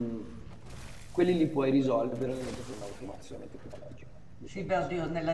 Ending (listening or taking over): taking over